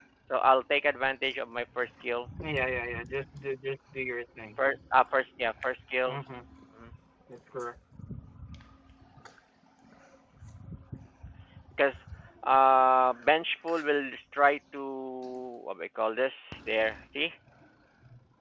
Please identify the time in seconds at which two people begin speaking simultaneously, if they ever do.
none

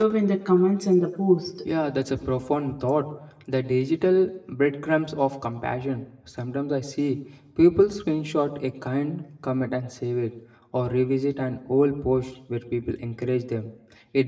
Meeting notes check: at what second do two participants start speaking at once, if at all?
none

